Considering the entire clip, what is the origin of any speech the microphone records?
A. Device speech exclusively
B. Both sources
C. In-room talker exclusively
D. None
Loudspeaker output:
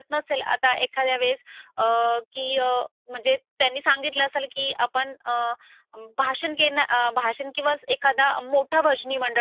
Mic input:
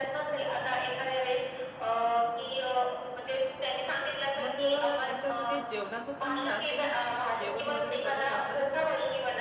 B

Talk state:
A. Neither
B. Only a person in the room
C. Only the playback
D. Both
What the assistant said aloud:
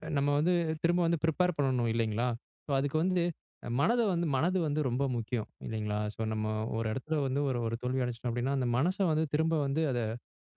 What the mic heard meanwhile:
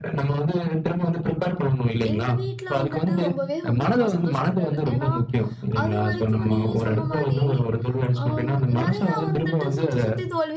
D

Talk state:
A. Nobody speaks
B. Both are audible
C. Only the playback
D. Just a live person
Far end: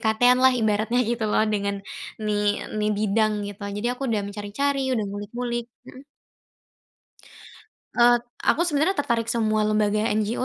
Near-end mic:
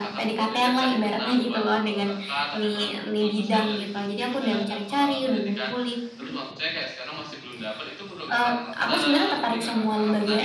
B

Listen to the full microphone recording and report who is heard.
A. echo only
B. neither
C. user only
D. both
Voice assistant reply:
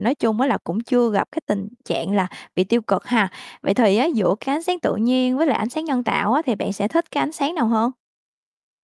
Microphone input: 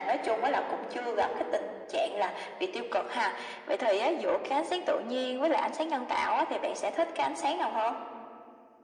A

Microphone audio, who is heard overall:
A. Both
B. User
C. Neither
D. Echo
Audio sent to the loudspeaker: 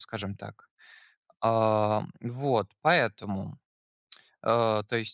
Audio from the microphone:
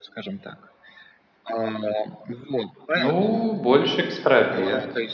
A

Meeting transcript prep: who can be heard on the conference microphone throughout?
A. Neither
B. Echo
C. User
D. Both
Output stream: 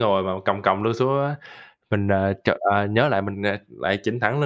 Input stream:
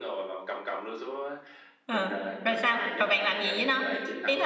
D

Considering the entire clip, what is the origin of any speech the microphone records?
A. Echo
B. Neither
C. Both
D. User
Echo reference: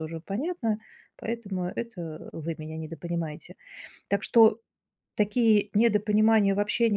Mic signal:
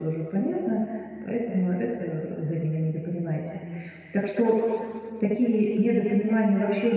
A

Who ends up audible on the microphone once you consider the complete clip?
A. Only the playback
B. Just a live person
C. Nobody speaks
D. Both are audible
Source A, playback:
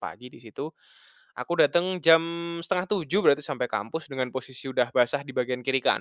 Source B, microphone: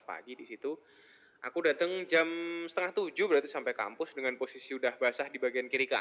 A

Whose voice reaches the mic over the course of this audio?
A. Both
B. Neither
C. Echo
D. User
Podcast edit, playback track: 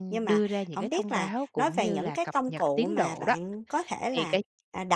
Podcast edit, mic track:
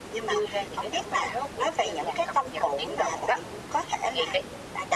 C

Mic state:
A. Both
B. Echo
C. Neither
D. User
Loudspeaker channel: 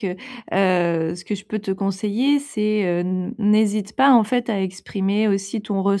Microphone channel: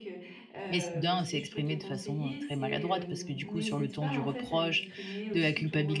A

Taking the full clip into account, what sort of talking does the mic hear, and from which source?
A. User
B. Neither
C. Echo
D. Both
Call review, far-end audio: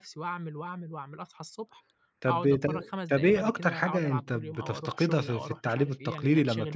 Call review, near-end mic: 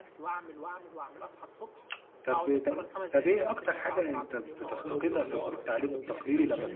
D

